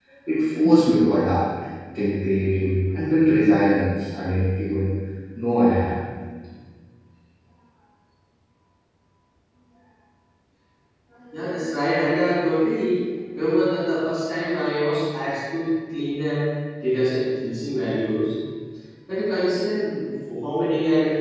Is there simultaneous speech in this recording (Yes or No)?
No